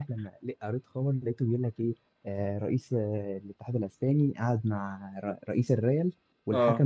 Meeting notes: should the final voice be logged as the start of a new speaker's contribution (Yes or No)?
No